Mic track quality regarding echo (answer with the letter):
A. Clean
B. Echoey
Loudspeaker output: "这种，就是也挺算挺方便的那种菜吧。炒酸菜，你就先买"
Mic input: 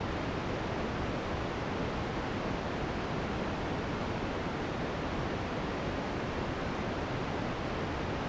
A